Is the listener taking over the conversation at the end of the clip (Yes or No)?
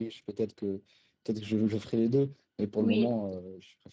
No